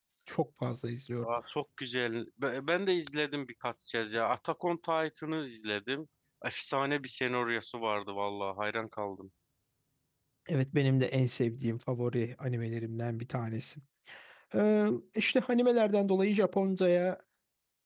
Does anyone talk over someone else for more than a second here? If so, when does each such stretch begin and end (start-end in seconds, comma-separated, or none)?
none